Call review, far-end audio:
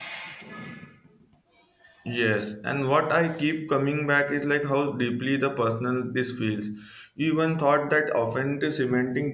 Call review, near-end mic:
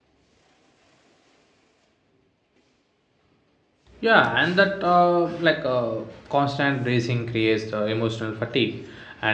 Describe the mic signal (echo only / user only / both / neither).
user only